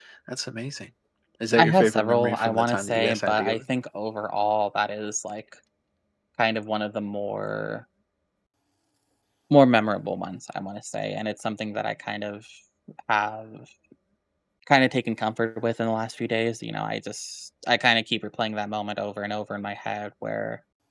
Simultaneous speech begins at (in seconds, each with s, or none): 1.6 s